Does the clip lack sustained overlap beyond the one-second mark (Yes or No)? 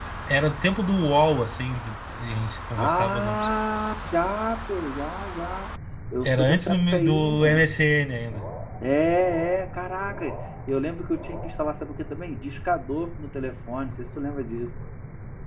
No